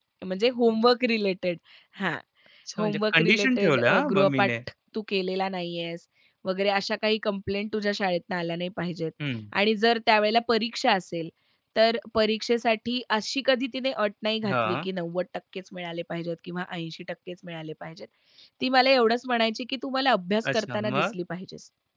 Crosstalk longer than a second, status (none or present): present